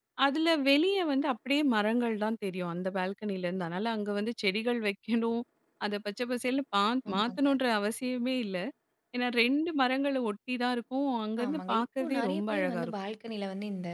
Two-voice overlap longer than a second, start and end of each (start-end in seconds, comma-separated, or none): 11.4-12.9